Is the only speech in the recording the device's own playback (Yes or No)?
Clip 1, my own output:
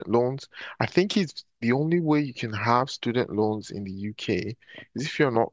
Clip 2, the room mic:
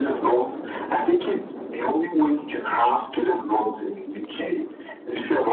Yes